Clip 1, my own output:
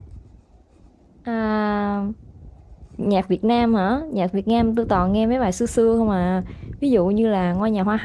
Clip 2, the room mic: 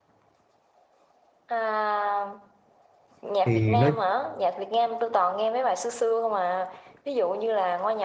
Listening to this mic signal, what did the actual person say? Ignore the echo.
thì nó

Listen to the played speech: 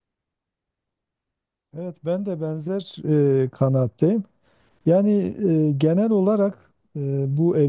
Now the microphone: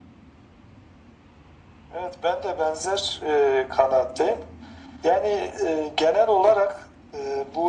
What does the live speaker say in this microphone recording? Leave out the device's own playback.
none

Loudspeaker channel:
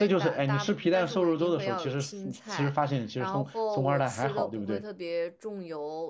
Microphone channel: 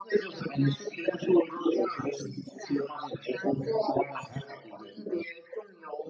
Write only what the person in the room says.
none

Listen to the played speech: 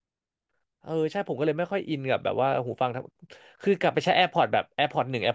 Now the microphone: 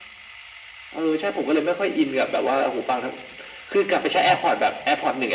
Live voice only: ครับ

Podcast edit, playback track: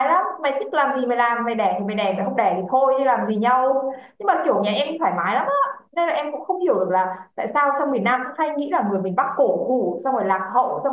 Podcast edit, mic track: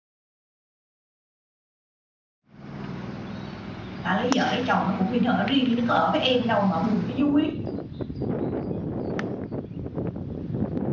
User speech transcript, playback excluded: đã lấy vợ lấy chồng nó cũng bị ở riêng nhưng nó có ở với em đâu mà buồn với vui

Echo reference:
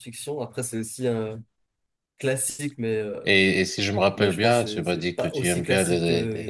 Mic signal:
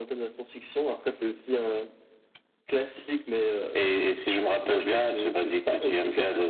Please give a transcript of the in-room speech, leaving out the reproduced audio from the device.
none

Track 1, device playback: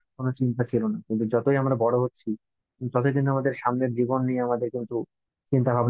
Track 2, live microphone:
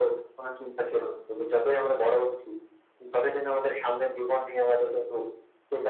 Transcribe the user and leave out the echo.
none

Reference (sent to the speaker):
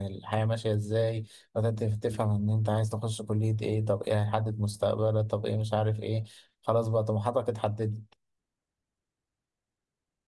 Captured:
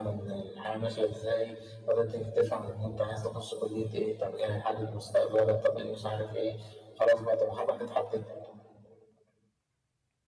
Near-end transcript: none

